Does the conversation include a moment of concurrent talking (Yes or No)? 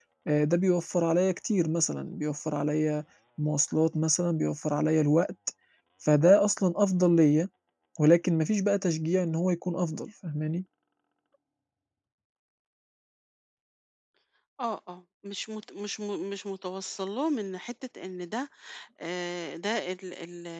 No